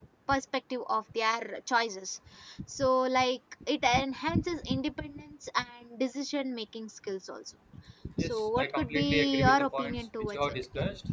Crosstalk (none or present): present